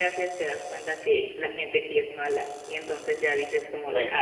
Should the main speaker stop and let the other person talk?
Yes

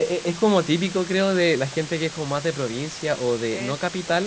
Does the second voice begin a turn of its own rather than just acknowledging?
No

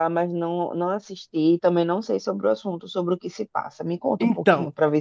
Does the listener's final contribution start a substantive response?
Yes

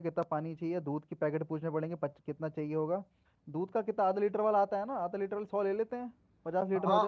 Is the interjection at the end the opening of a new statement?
Yes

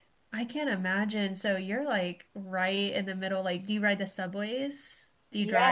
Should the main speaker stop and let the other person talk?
Yes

